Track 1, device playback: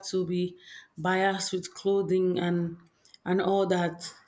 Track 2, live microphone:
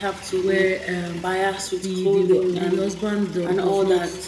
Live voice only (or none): where um the the the husband do, does not